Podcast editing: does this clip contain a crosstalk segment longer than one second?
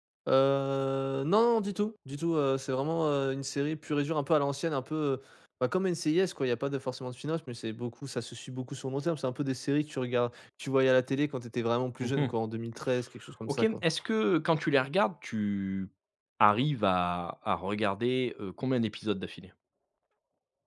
No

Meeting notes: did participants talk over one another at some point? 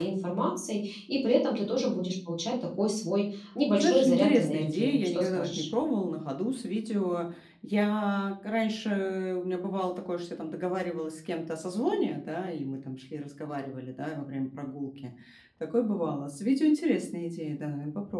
Yes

